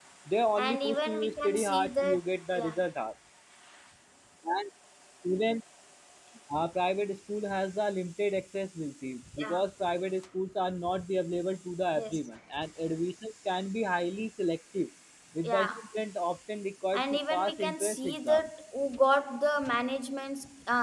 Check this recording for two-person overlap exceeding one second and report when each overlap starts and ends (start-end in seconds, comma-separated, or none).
0.6-2.2, 16.9-18.5